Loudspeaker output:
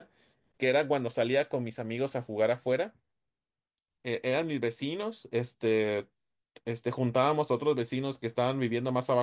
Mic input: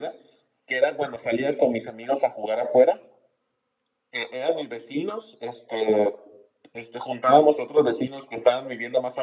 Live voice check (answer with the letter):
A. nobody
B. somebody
A